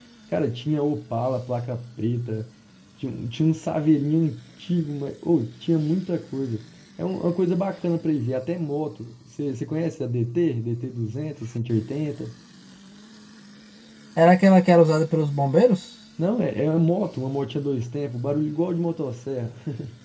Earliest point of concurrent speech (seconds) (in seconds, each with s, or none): none